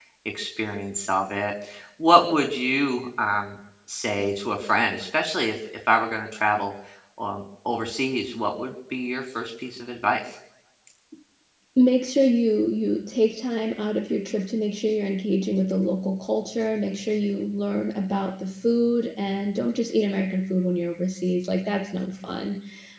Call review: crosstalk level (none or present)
none